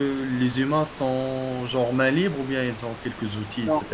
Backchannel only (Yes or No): No